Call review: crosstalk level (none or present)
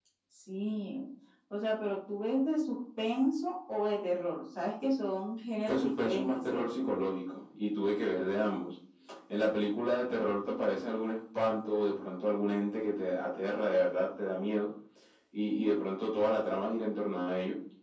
present